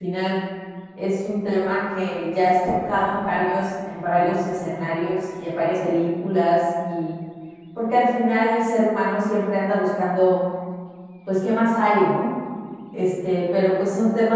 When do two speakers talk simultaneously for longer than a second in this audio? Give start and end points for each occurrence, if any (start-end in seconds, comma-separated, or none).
none